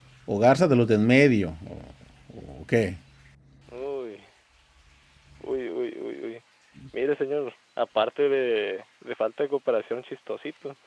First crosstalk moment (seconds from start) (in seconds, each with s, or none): none